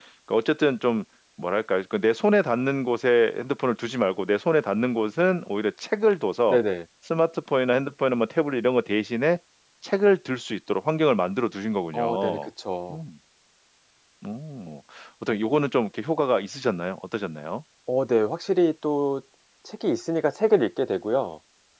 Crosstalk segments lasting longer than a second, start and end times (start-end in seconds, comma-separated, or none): none